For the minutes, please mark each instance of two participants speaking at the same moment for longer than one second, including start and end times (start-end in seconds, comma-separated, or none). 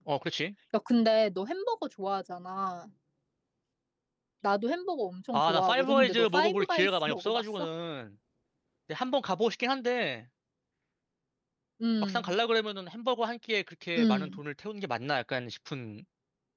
5.3-7.4